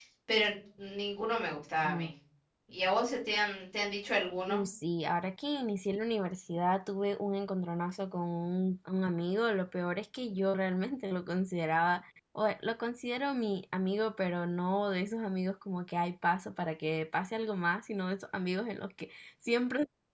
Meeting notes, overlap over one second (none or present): none